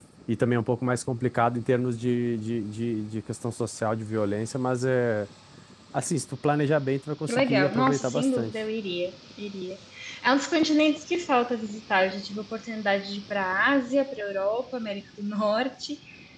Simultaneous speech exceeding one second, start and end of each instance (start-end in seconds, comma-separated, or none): 7.3-8.5